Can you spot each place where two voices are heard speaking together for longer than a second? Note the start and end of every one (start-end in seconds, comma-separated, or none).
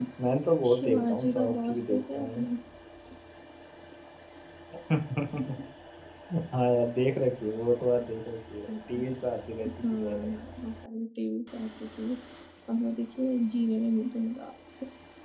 0.7-2.4